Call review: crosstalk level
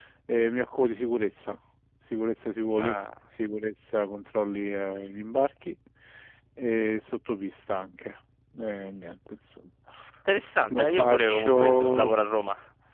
present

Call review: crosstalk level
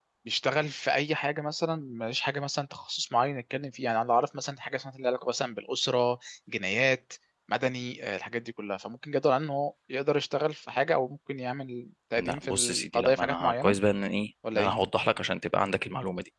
present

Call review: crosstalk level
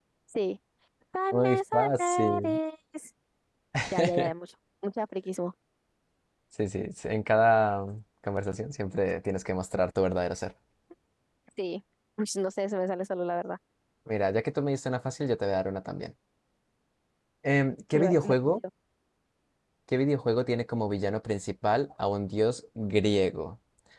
present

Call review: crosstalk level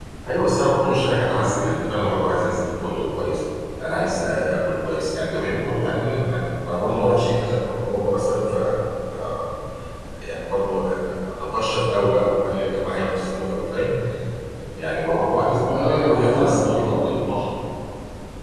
present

